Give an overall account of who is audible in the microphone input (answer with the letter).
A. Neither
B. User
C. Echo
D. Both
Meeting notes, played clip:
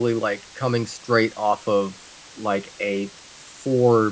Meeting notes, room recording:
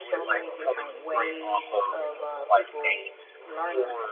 D